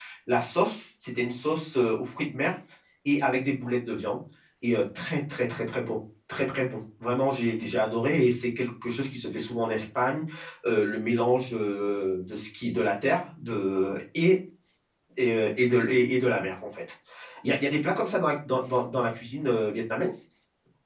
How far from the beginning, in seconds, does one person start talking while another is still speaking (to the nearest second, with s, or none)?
none